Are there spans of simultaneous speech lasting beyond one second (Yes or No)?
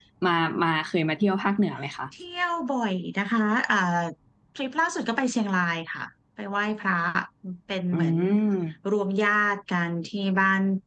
No